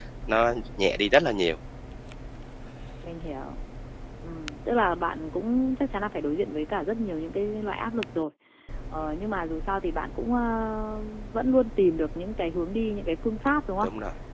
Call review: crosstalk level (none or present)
none